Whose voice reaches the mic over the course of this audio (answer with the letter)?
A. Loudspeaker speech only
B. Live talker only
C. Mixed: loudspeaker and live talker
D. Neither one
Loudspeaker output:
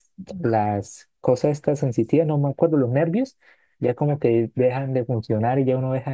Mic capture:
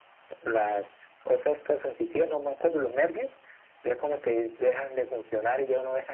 A